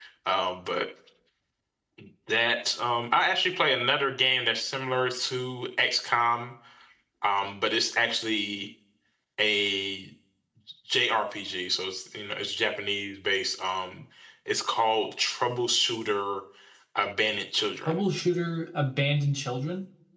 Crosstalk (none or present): none